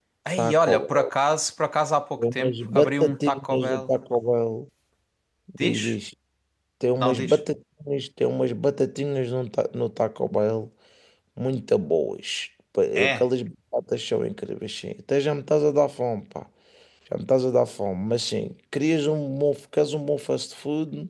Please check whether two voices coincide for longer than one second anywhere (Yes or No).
Yes